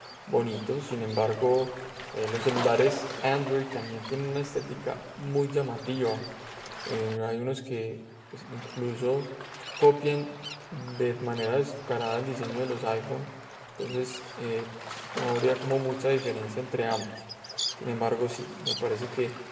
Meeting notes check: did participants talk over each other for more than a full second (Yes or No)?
No